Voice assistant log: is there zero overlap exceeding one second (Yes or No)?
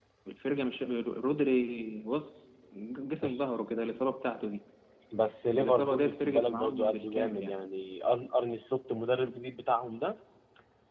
No